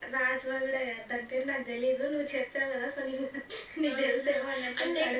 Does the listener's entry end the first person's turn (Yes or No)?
Yes